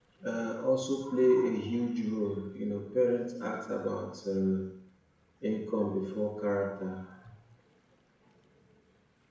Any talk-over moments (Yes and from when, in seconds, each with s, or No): No